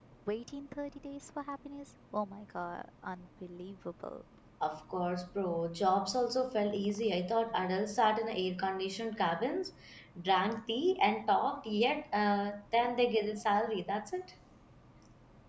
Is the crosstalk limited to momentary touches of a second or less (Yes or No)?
Yes